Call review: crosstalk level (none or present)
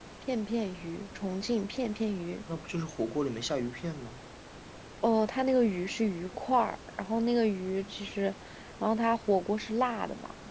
none